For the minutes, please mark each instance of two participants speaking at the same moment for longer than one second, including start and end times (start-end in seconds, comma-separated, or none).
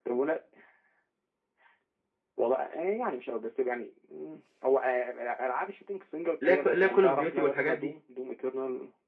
6.4-8.0